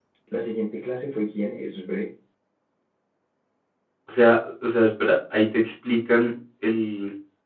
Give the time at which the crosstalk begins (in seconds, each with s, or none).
none